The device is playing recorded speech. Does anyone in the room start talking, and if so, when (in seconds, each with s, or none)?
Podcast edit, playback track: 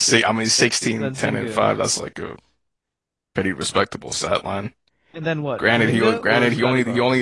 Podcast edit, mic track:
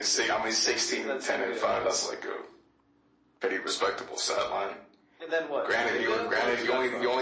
none